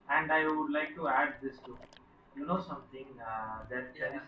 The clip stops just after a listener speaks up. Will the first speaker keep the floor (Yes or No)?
Yes